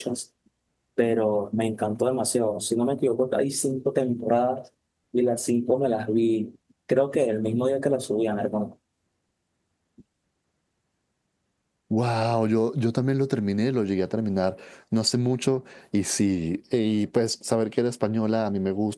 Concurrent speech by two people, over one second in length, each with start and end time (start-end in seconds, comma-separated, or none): none